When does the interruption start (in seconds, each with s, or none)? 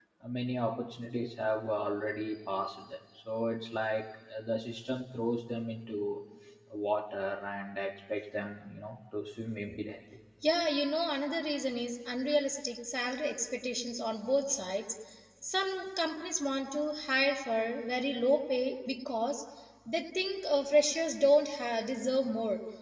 none